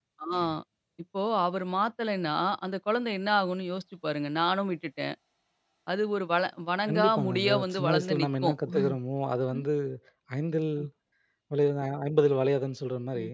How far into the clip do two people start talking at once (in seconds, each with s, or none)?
6.9 s